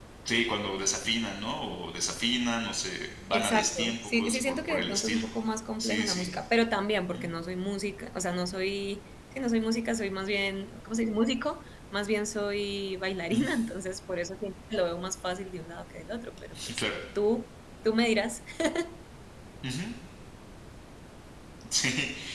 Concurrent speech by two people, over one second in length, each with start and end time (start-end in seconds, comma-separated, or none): 3.3-5.2